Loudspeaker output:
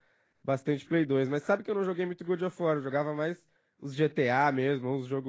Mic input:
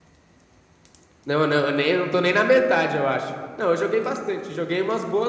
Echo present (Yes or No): No